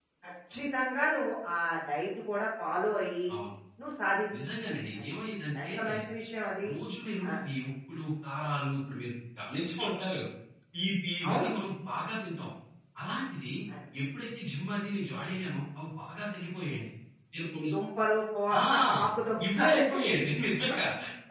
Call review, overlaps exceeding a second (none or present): none